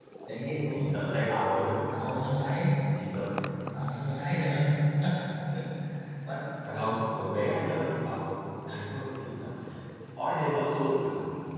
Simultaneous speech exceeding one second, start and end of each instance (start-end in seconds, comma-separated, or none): none